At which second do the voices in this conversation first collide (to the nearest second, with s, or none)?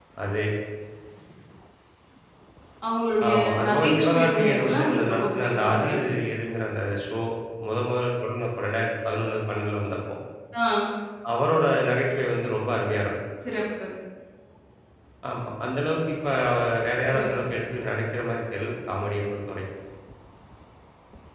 3 s